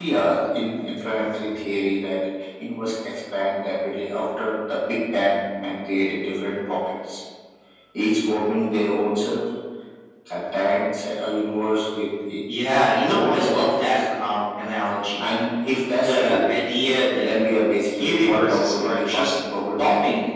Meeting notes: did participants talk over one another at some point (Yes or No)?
Yes